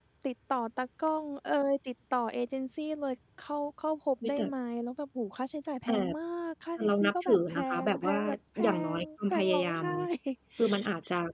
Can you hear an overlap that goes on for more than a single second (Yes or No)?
Yes